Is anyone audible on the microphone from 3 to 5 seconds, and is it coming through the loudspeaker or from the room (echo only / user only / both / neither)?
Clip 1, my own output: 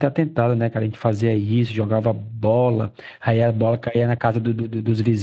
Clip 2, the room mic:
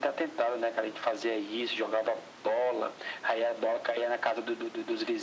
echo only